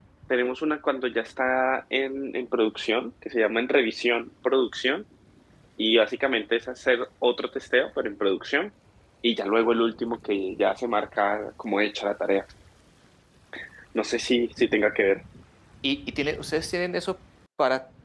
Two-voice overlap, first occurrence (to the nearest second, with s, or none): none